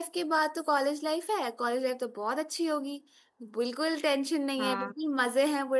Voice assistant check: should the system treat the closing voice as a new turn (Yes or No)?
No